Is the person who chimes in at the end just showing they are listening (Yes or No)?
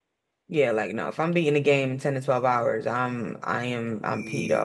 No